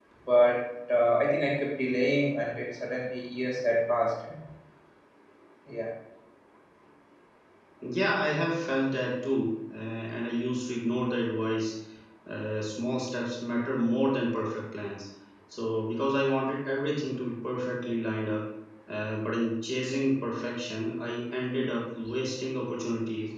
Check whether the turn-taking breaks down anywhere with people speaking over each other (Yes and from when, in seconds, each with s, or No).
No